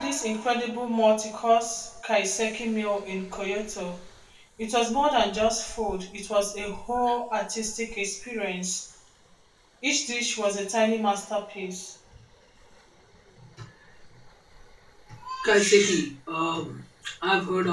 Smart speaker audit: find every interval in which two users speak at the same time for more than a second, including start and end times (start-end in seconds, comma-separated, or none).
none